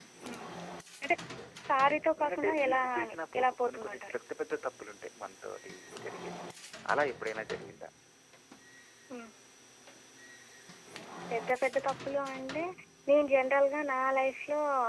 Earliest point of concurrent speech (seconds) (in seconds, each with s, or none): 2.2 s